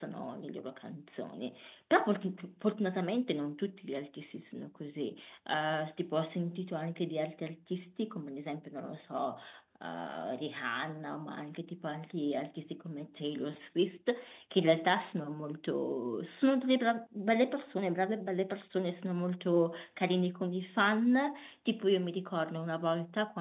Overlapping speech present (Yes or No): No